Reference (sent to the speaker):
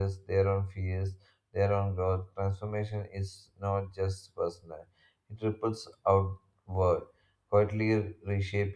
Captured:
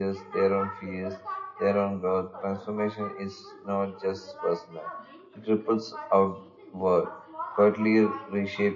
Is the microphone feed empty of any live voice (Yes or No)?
No